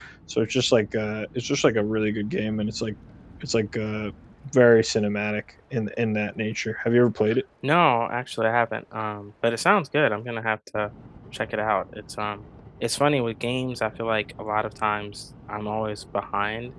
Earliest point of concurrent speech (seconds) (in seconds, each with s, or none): none